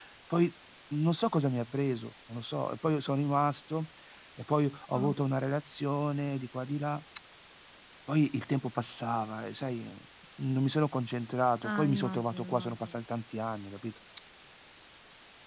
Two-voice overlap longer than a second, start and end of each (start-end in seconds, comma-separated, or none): 11.6-12.9